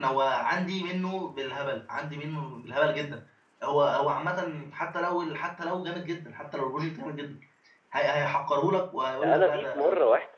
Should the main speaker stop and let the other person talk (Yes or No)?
Yes